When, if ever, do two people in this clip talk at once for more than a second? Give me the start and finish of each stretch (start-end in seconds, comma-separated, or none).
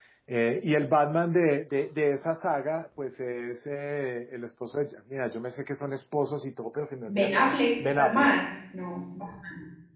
7.1-8.4